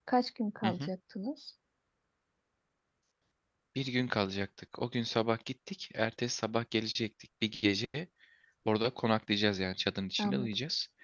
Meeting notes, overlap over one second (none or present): none